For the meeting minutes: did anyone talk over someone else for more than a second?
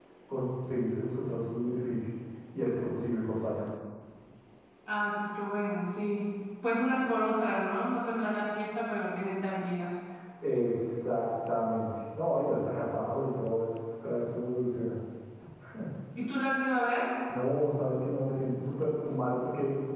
No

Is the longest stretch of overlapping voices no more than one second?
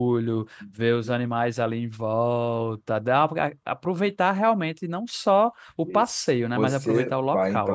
No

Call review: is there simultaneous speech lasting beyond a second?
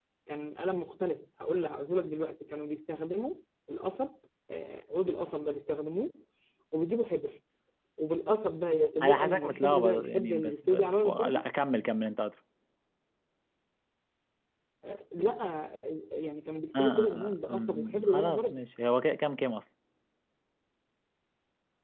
Yes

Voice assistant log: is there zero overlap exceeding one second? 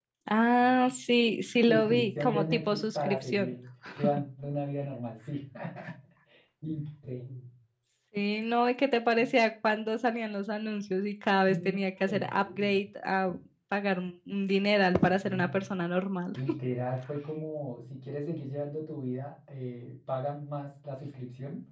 No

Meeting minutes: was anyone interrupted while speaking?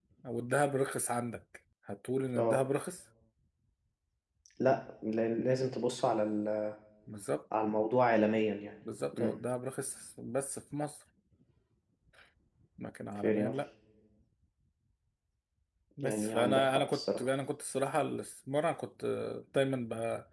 Yes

